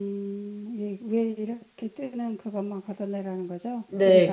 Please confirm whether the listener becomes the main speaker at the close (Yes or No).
Yes